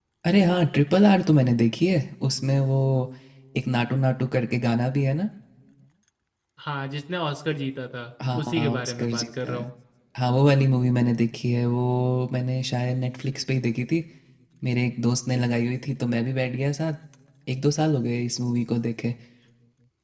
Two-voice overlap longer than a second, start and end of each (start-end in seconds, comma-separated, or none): 8.3-9.6